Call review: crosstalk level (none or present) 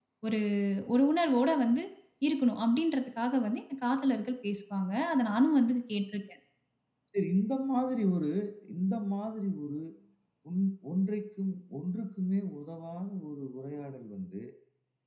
none